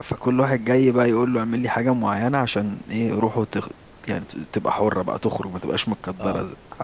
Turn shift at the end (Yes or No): No